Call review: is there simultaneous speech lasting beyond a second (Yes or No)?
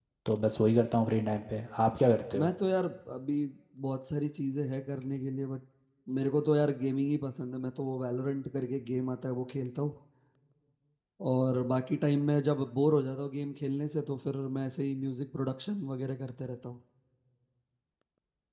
No